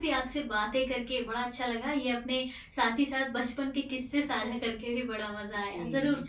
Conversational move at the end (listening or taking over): listening